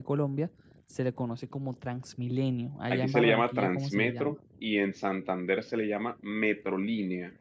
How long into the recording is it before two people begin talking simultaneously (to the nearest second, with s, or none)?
3 s